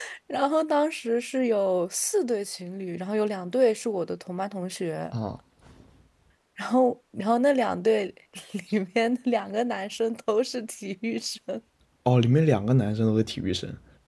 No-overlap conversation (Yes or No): Yes